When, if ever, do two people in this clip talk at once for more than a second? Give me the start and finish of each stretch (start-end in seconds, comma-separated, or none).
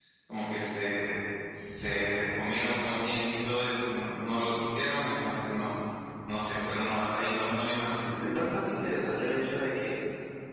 none